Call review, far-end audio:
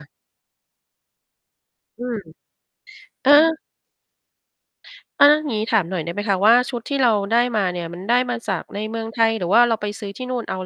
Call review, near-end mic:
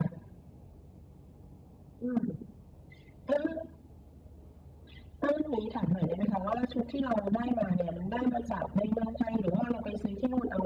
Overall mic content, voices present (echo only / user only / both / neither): echo only